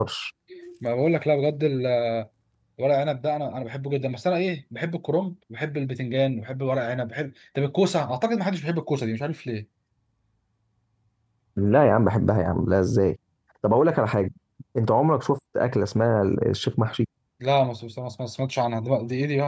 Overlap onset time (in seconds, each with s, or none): none